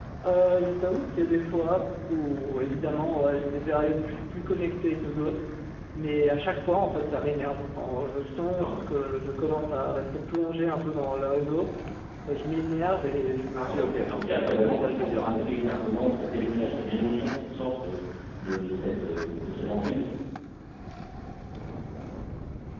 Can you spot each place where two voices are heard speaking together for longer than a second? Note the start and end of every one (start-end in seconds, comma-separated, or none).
13.6-15.5